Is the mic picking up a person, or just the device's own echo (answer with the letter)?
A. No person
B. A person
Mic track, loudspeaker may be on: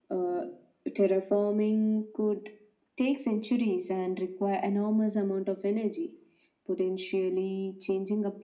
A